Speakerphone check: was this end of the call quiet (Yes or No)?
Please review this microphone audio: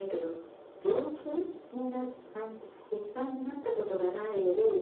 Yes